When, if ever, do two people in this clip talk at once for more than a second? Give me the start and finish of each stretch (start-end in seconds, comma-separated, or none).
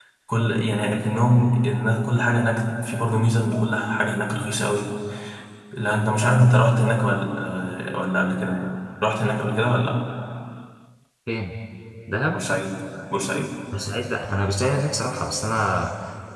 none